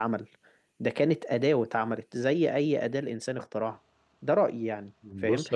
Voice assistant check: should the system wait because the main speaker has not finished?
Yes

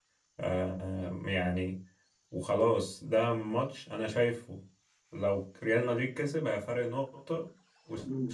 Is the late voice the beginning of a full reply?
No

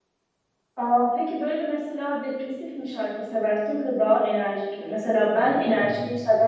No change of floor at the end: Yes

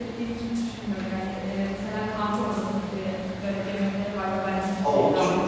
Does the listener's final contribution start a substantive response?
Yes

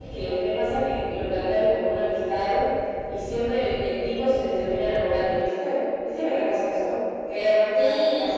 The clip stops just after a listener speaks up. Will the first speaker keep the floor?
No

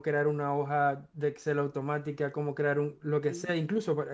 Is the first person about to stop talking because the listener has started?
No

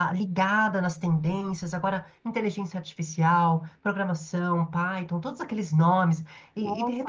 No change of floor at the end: No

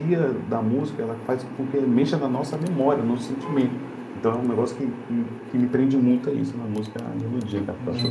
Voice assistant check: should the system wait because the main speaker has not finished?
No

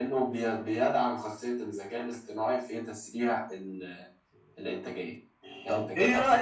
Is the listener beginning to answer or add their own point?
Yes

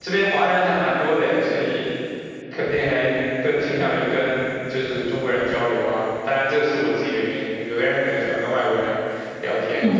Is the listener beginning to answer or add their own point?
Yes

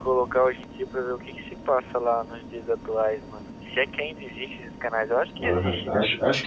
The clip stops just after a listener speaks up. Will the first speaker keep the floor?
No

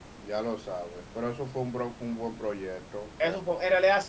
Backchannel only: No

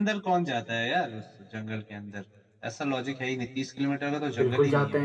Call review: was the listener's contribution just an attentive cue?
No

